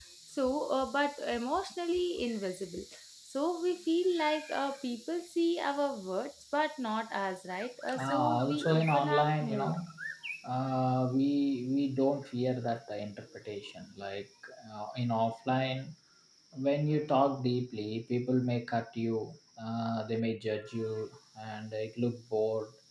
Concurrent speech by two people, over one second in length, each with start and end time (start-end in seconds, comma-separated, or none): 8.0-9.7